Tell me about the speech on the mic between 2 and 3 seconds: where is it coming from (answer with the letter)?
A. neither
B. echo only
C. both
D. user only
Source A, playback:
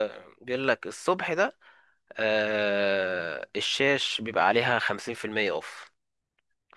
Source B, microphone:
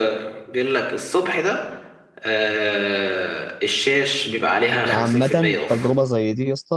B